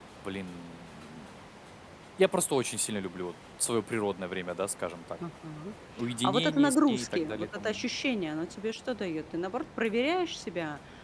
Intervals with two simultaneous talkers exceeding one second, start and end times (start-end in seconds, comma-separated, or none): 6.2-7.8